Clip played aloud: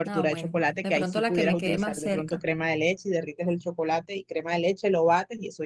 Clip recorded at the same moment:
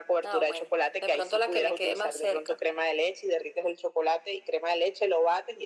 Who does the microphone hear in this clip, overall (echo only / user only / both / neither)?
echo only